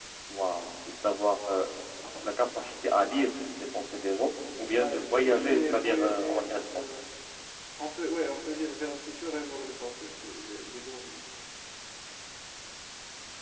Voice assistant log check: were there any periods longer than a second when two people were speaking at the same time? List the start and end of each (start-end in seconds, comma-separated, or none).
4.6-6.7